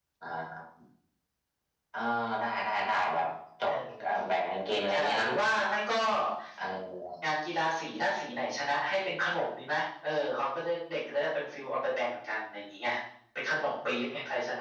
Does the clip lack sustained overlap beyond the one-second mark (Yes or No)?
Yes